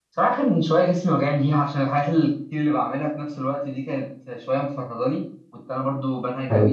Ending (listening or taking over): listening